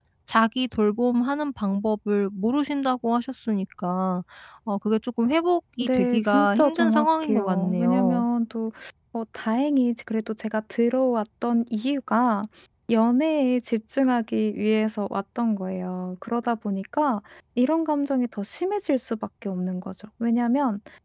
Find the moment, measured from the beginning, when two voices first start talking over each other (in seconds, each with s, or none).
5.8 s